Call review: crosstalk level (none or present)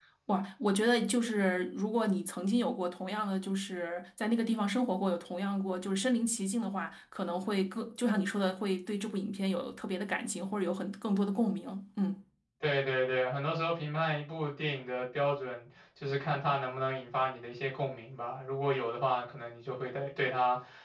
none